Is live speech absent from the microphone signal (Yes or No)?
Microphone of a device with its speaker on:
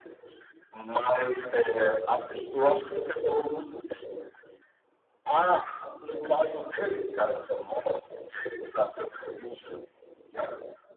Yes